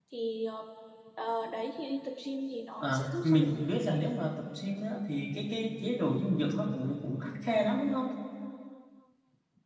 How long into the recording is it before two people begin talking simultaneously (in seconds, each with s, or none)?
2.8 s